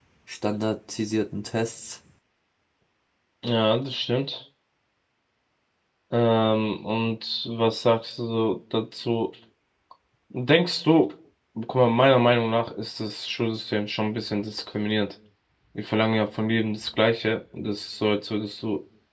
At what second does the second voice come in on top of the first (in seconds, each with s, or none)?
none